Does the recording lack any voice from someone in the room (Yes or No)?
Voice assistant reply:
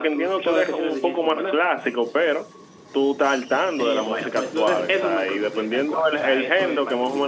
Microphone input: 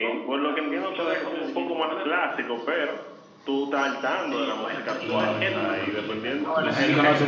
No